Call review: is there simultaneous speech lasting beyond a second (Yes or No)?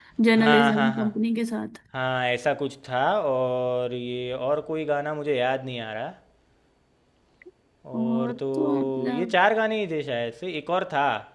Yes